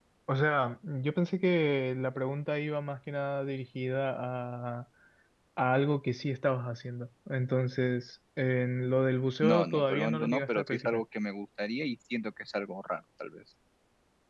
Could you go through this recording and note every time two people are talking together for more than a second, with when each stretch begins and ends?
9.4-11.0

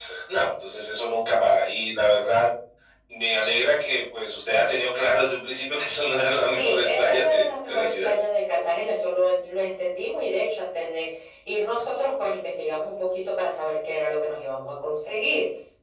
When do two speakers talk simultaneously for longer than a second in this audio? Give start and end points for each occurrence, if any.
6.3-8.1

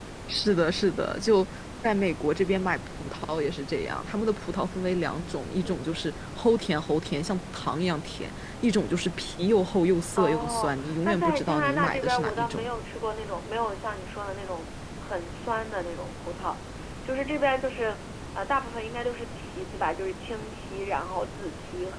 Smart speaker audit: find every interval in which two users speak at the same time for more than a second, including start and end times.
10.2-12.7

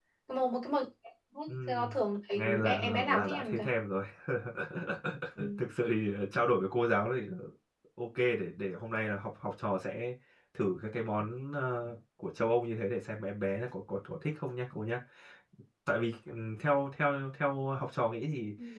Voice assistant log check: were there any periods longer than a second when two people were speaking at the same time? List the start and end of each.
2.4-3.7

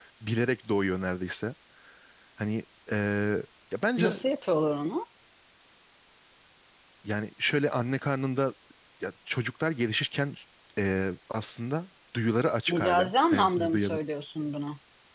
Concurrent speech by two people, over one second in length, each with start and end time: 12.7-13.9

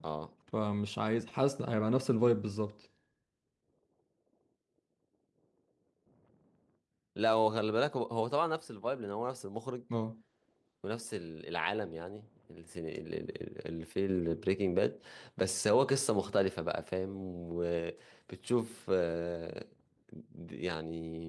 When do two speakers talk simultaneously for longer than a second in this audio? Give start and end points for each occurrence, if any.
none

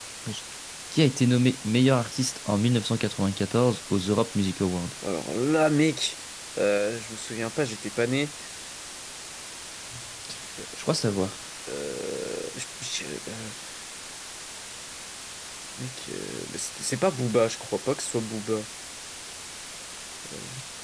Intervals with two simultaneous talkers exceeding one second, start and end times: none

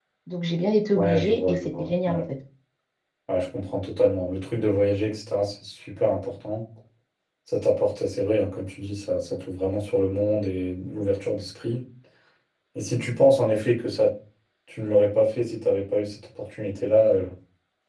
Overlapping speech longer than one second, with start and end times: 1.0-2.2

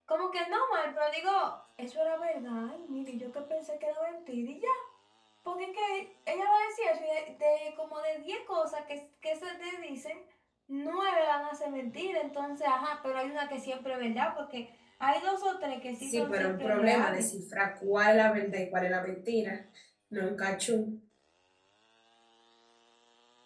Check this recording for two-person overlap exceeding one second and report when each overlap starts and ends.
16.0-17.3

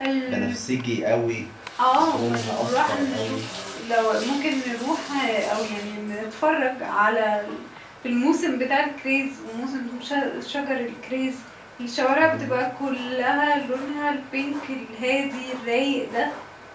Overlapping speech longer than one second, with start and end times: 2.0-3.4

